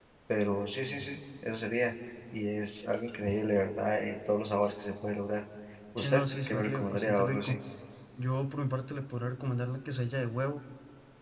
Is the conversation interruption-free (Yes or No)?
No